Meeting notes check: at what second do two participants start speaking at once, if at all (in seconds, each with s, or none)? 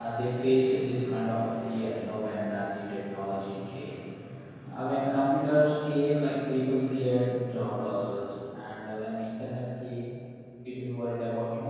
none